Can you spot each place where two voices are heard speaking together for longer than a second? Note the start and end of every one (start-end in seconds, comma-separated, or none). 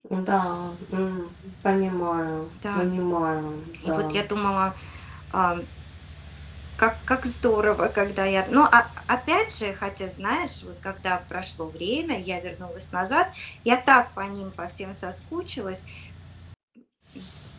none